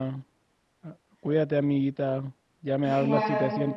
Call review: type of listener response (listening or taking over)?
listening